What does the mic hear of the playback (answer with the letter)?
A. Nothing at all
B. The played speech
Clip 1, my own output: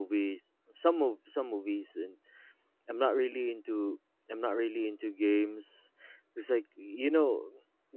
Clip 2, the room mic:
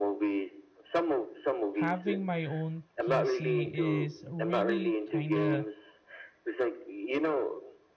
B